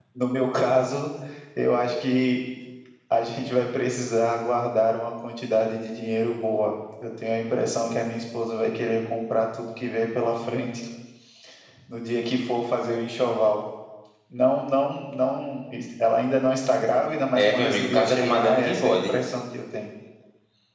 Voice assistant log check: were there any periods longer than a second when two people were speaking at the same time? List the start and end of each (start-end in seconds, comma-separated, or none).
17.4-19.1